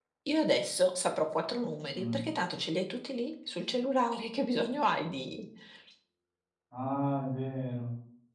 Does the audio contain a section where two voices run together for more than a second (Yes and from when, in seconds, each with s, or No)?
No